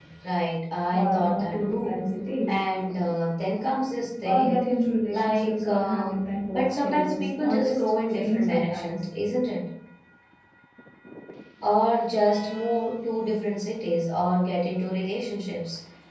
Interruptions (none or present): present